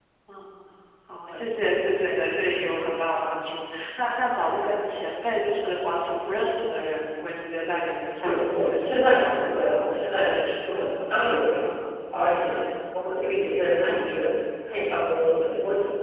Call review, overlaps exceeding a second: present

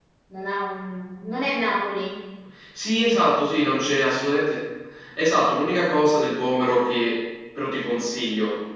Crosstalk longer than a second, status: none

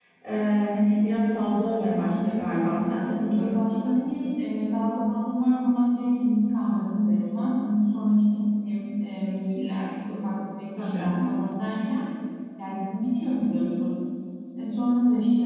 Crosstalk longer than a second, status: present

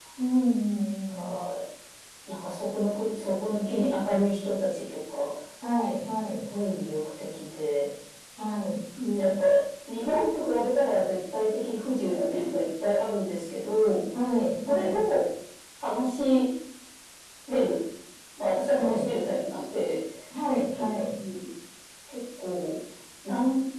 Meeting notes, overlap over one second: none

